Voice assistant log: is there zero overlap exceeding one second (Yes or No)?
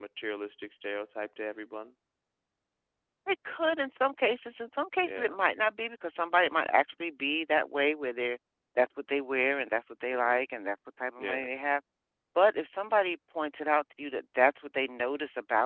Yes